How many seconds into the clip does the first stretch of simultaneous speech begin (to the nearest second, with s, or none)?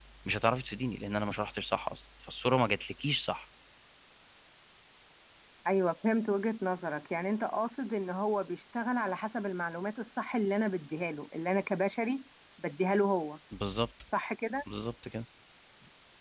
none